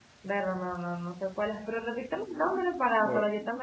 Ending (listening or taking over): taking over